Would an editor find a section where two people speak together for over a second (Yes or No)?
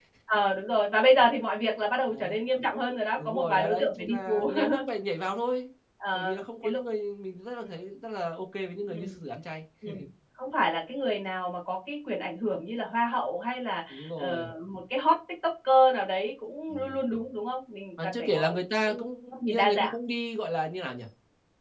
Yes